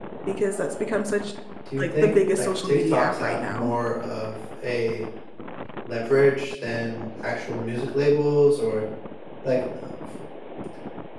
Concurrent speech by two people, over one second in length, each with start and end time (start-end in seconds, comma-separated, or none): 1.8-3.7